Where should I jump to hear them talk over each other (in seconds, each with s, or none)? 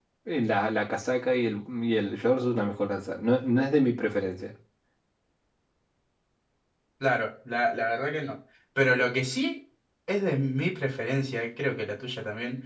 none